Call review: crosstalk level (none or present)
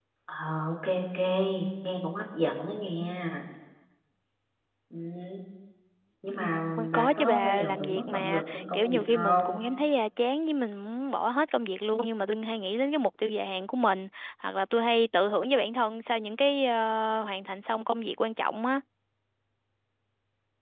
present